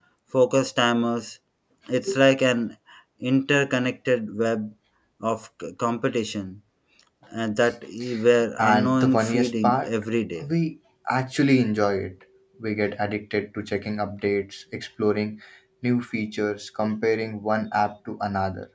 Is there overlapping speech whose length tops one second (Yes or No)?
Yes